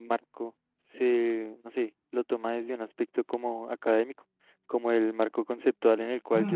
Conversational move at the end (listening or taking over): taking over